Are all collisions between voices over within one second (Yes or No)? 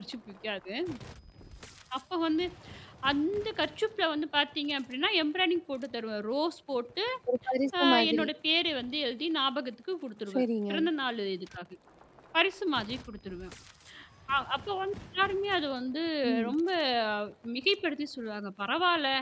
Yes